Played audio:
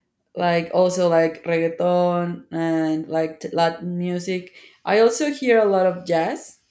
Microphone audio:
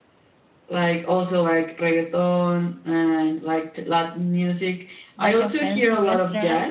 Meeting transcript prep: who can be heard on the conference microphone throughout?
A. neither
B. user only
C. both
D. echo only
C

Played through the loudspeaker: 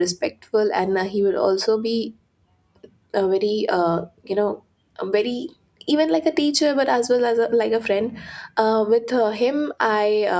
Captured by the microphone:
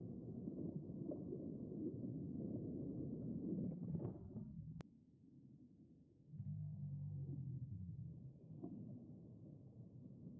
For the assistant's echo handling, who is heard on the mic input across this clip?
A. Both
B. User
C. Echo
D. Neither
D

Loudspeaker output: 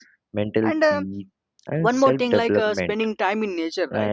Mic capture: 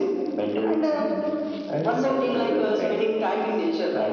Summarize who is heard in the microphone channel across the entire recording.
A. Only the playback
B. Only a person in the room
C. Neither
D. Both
A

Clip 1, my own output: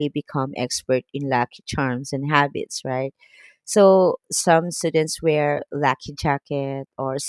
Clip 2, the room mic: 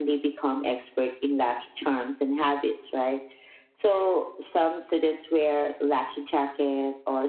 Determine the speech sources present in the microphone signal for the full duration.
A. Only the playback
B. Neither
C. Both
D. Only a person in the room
A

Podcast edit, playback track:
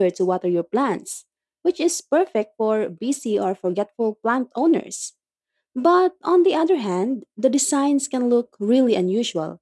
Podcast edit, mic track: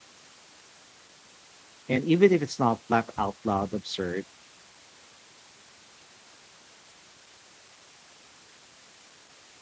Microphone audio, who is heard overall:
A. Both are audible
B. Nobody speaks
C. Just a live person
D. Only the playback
C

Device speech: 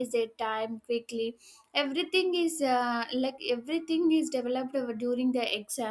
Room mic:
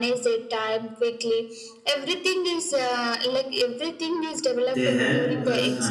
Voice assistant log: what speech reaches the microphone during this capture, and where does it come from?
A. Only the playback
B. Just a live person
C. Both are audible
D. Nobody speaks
C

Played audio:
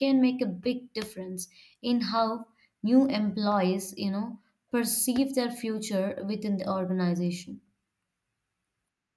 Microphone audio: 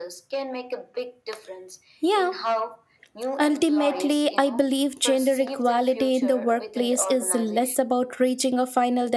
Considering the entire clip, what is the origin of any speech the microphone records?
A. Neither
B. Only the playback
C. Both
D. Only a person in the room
C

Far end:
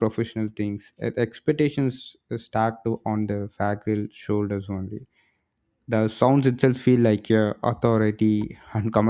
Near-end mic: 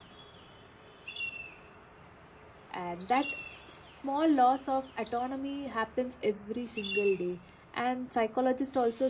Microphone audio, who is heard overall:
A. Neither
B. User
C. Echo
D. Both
B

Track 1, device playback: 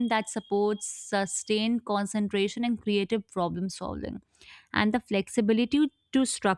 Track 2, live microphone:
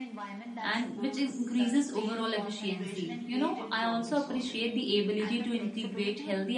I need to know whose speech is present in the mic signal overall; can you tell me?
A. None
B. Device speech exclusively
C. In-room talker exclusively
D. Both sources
D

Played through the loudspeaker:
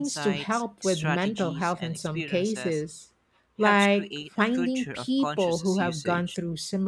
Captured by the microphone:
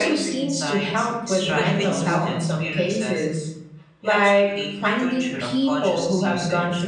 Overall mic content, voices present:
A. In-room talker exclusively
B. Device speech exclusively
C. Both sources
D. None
C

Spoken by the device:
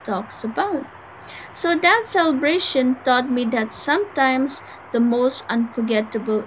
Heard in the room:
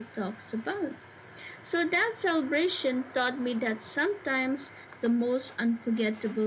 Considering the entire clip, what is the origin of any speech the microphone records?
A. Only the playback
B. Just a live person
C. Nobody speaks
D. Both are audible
A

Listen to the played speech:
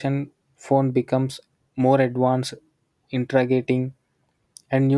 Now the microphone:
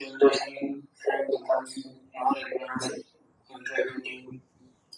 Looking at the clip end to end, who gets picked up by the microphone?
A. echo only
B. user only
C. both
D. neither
A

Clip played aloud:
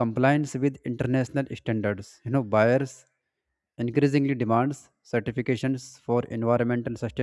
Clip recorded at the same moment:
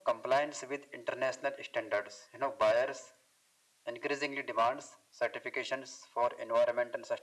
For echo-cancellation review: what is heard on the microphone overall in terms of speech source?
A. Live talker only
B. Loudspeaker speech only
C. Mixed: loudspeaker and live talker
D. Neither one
B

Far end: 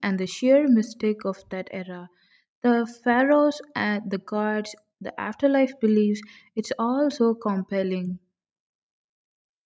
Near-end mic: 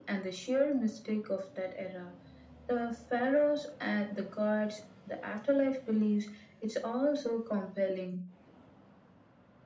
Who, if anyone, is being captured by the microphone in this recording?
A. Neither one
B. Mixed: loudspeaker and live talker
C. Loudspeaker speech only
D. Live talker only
C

